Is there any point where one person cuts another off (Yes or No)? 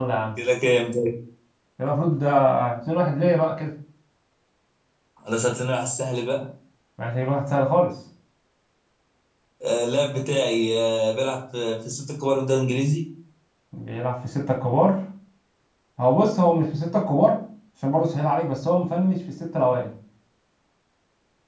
No